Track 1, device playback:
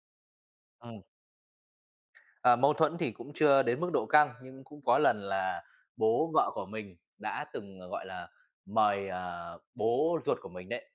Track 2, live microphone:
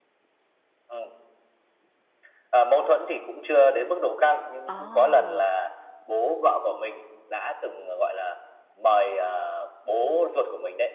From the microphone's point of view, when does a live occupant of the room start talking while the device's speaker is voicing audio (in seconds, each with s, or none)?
4.6 s